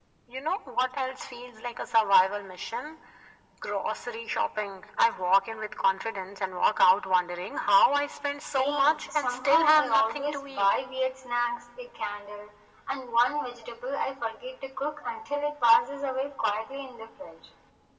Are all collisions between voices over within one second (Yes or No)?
No